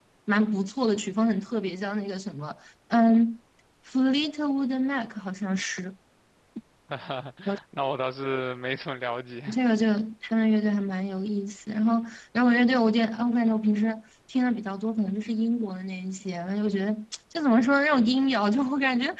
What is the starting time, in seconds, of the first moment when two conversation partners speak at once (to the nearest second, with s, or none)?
none